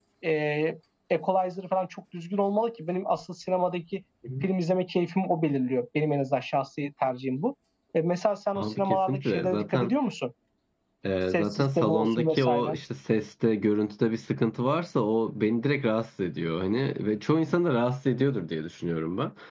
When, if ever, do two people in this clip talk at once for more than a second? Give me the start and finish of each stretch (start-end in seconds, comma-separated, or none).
8.6-9.9, 11.2-12.8